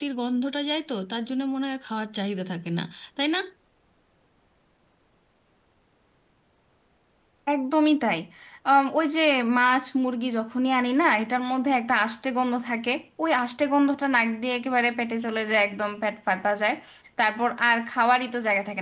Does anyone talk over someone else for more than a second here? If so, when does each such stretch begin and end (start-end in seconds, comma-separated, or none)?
none